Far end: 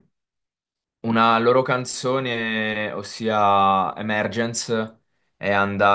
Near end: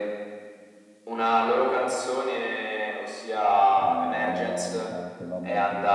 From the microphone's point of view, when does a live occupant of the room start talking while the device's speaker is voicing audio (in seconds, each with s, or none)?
3.7 s